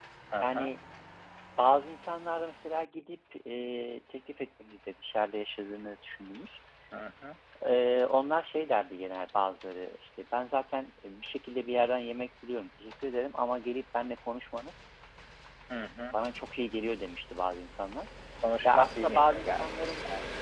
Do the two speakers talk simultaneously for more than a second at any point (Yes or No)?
Yes